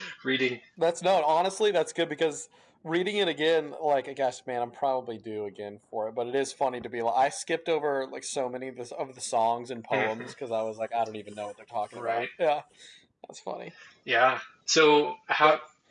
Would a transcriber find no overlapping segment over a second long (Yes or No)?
Yes